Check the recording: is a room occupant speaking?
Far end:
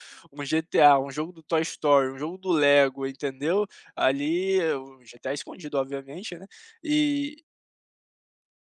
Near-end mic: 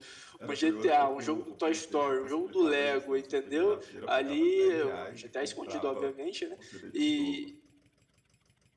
Yes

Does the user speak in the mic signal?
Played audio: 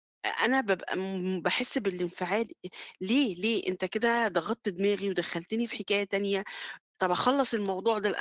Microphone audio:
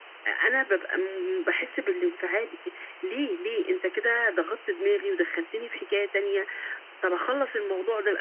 No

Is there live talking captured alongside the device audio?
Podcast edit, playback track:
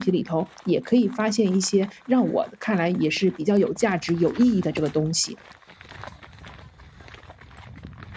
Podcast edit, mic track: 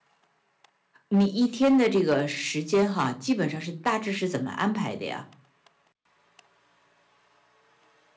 Yes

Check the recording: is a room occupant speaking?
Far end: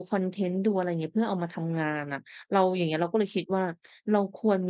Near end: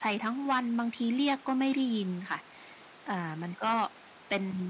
Yes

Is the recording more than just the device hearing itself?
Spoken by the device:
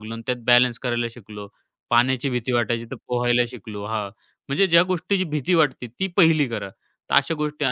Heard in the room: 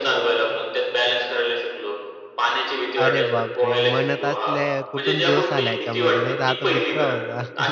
Yes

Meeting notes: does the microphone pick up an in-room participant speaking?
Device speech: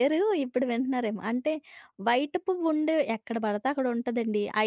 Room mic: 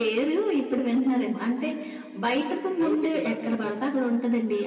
Yes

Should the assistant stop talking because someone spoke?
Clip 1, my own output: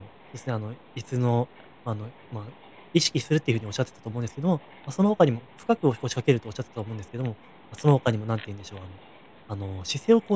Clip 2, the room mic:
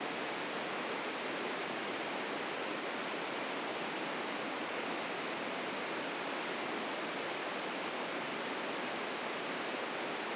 No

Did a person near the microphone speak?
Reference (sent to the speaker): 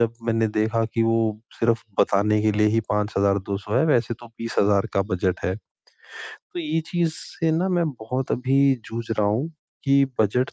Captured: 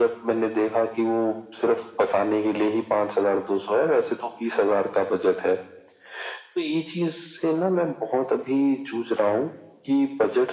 No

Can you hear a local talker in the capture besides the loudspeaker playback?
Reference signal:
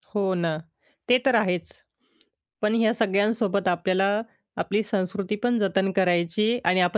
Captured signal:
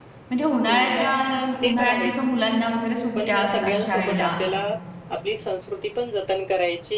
Yes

